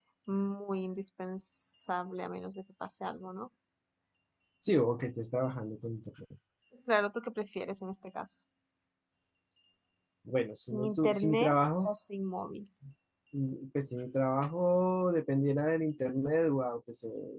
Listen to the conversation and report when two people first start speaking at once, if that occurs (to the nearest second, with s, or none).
11 s